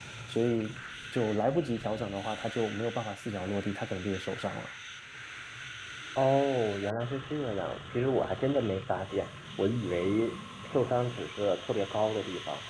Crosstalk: none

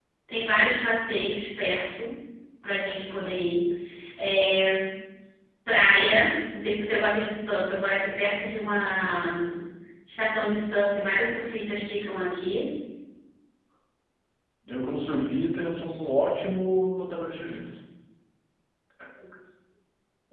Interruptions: none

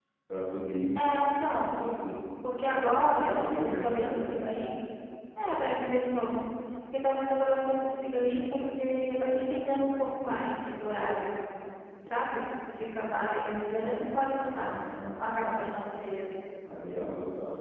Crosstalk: present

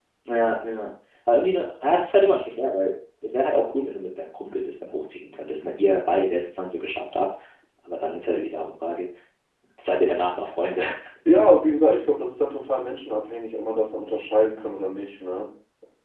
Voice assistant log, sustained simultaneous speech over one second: none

